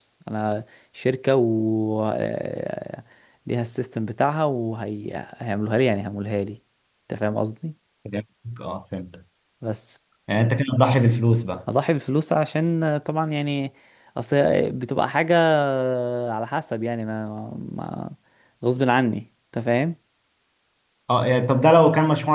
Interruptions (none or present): none